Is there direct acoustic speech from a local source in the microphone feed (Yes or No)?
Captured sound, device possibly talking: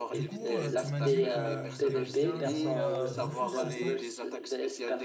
Yes